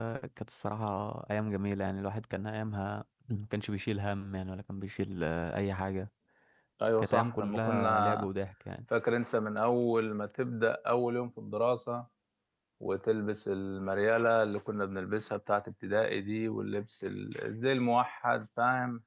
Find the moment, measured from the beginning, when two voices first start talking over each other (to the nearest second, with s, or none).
7 s